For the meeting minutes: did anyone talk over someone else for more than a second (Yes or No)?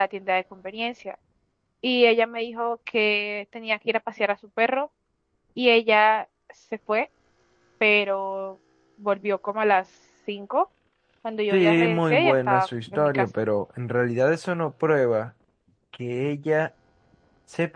Yes